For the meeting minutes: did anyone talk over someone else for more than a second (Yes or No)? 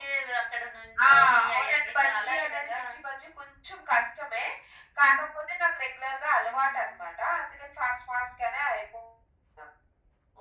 Yes